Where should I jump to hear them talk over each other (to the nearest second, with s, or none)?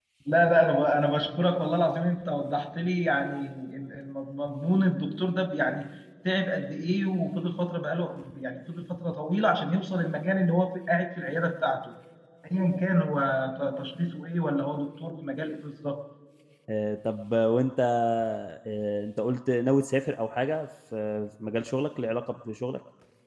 none